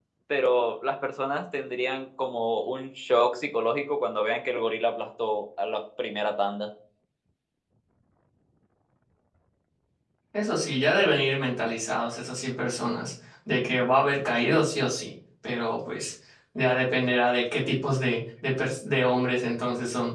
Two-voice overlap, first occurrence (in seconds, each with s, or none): none